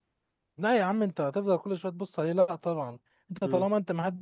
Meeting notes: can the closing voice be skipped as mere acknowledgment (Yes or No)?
Yes